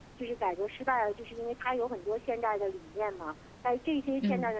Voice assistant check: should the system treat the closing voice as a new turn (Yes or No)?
No